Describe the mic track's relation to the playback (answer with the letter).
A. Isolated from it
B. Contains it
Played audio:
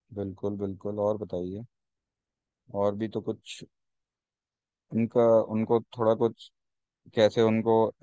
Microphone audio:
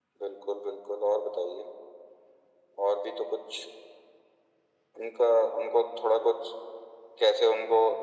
B